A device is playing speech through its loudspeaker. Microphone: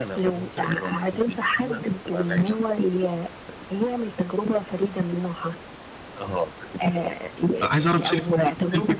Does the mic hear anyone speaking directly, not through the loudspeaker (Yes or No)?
Yes